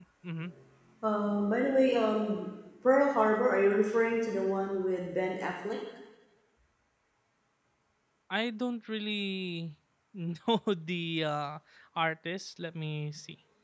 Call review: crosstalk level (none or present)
none